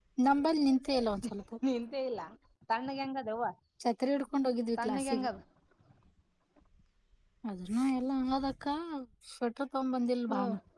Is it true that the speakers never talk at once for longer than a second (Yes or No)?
Yes